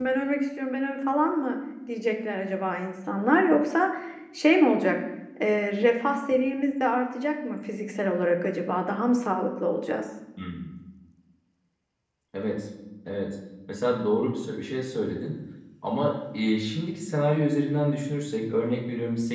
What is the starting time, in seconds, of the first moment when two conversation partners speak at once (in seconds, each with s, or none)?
none